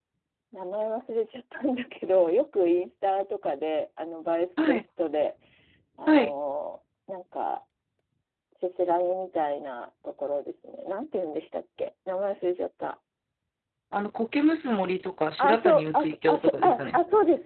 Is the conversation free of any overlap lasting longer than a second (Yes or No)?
No